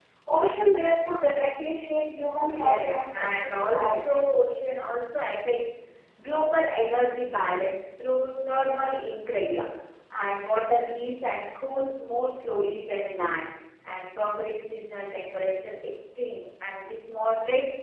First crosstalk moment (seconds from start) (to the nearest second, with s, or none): 2 s